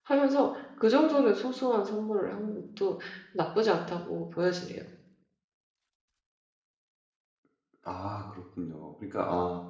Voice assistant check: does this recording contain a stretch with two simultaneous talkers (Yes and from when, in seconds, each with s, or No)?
No